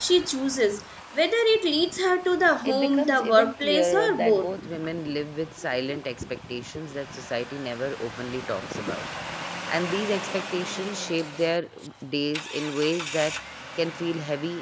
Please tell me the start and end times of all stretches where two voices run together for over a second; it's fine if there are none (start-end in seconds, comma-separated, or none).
2.6-4.5